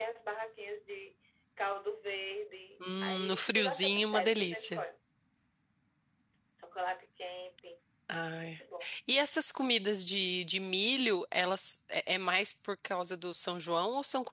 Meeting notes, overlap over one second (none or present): present